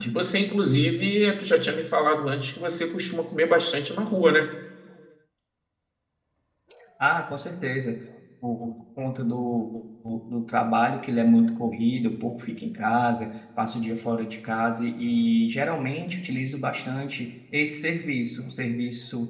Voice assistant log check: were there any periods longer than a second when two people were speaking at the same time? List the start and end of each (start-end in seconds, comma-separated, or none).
none